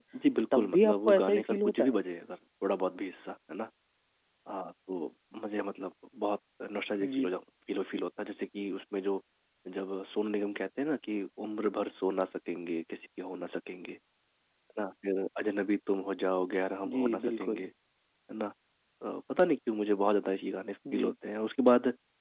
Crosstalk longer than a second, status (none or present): present